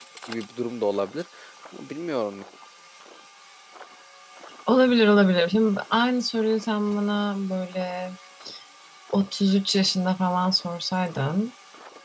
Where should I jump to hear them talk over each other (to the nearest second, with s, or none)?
none